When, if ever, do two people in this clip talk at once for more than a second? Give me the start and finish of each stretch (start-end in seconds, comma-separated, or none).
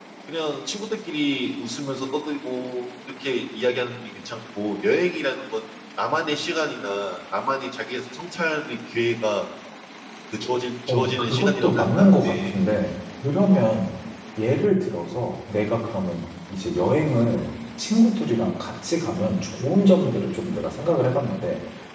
10.9-12.6